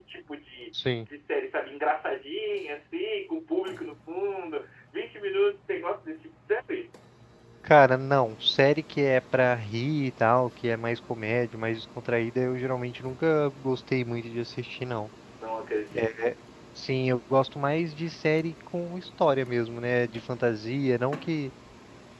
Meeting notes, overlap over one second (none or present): none